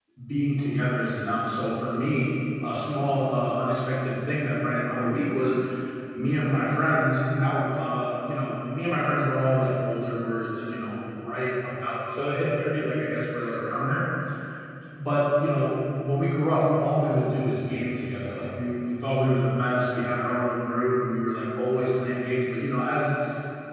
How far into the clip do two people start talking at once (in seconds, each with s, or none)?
none